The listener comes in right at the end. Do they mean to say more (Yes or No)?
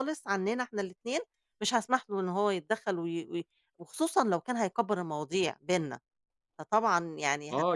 Yes